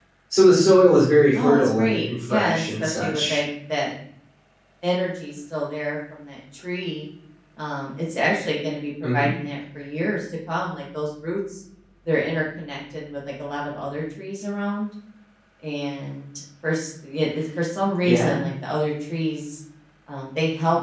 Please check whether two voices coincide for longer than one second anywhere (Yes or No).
Yes